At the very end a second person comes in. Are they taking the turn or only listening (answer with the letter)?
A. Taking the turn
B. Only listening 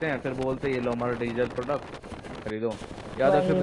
B